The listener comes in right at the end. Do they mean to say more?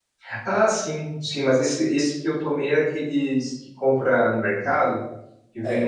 Yes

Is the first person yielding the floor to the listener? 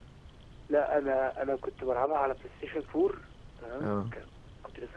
No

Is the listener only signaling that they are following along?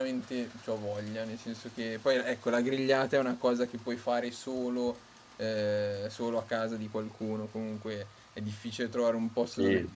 Yes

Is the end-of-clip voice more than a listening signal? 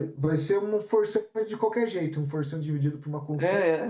Yes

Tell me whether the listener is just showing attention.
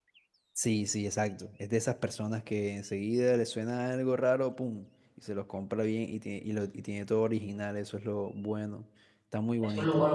No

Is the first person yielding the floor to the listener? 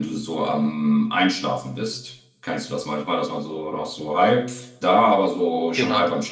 No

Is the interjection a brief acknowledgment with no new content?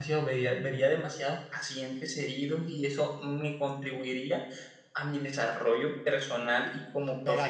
No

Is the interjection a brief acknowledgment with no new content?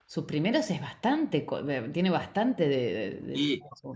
No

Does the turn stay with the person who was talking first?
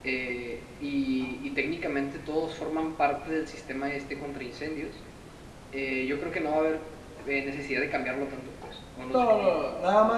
No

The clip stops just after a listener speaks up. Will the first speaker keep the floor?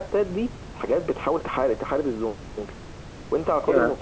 Yes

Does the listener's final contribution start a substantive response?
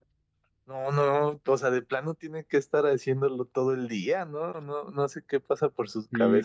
Yes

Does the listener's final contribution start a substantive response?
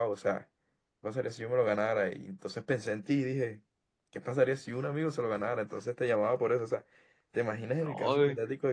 No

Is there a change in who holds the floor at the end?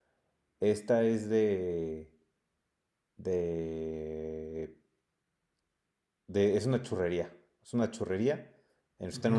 No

